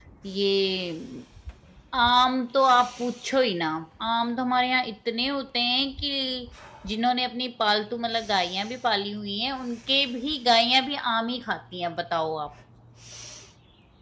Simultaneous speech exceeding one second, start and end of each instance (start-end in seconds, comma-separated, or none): none